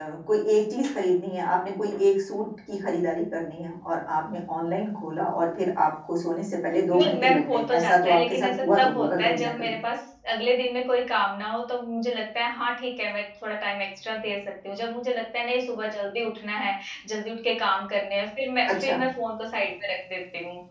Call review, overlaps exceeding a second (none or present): present